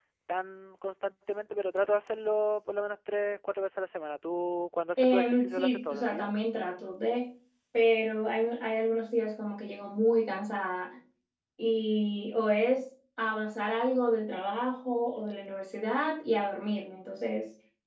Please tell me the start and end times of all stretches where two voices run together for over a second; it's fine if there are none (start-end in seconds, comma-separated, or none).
5.0-6.3